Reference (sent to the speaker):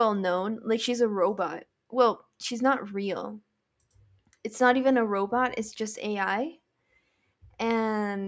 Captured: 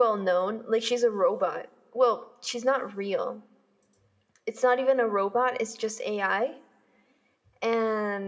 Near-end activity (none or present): none